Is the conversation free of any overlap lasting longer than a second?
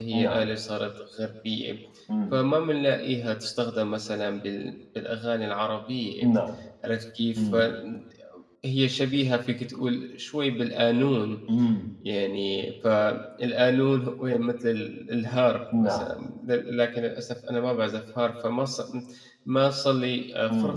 Yes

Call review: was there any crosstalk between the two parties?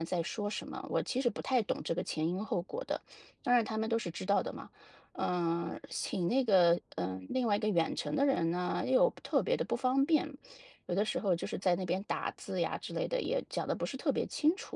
No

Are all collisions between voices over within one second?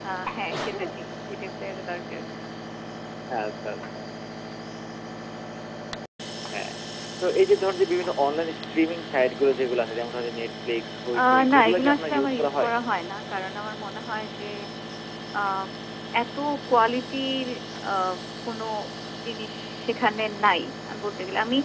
No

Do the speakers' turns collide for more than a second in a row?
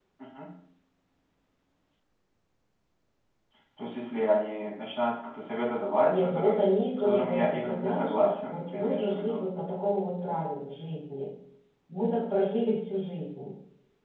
Yes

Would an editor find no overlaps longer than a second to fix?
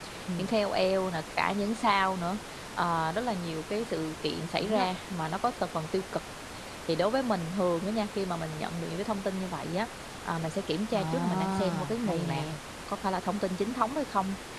No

